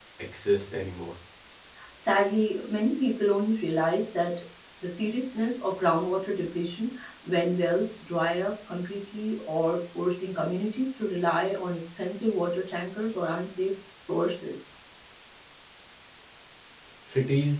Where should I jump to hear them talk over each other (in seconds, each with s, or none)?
none